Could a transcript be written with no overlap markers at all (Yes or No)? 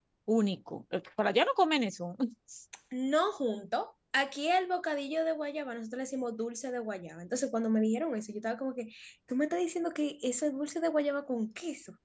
Yes